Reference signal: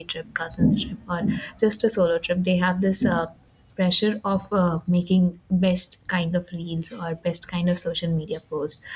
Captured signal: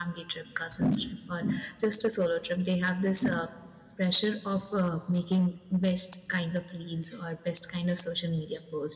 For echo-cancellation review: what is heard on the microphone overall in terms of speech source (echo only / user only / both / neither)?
echo only